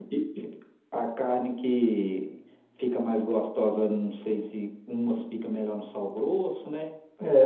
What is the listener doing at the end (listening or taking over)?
taking over